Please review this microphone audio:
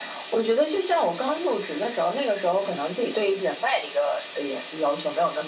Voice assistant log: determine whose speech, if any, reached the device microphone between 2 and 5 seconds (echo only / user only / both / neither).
echo only